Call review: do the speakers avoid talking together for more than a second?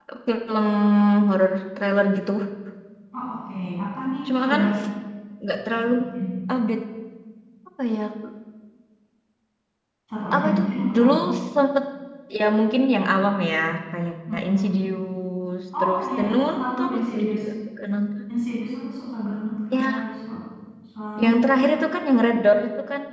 No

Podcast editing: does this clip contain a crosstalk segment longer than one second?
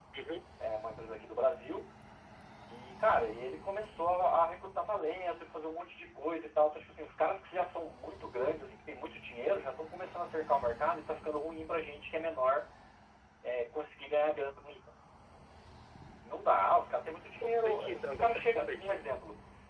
Yes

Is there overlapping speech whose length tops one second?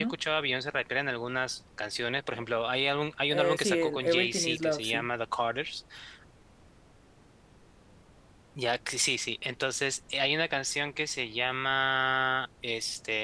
Yes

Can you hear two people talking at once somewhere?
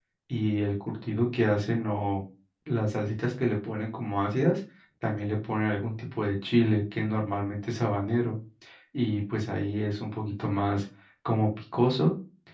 No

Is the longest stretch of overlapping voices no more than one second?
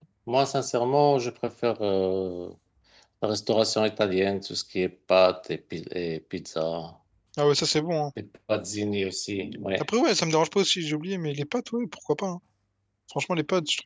Yes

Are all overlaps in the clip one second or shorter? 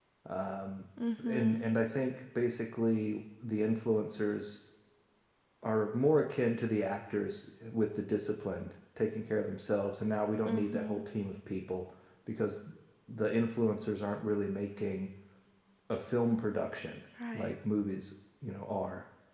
Yes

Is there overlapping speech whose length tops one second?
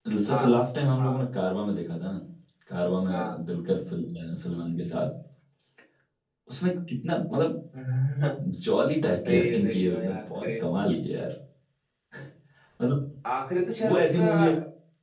Yes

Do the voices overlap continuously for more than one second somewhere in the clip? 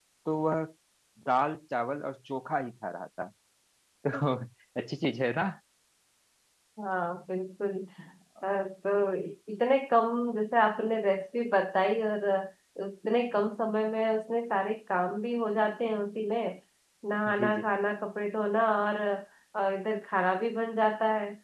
No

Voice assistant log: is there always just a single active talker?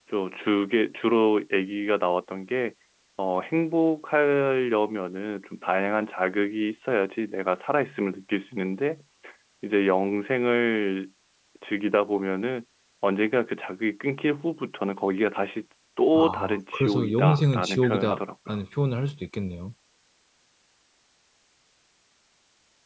No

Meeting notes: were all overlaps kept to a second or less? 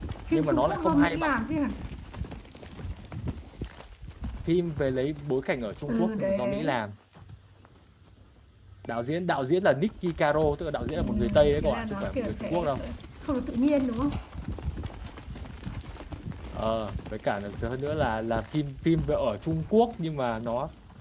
No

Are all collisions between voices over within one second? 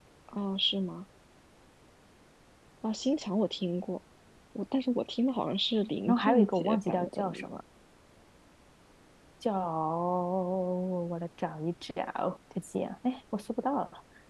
No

